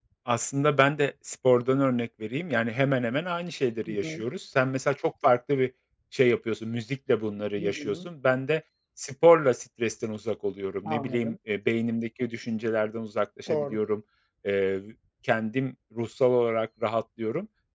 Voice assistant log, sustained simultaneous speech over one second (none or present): none